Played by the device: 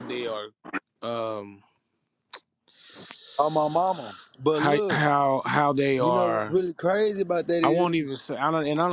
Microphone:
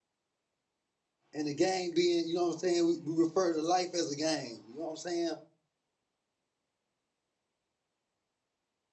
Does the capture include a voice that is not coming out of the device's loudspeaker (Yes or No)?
Yes